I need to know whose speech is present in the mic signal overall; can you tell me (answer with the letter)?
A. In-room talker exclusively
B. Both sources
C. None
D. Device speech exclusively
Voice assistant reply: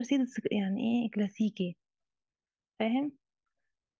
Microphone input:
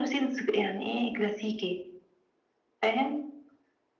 D